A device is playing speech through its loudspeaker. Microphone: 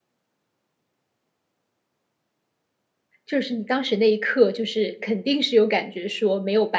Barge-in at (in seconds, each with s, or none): 3.3 s